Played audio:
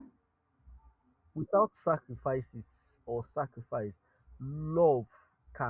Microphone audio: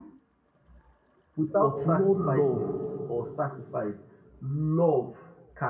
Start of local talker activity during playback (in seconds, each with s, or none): 1.6 s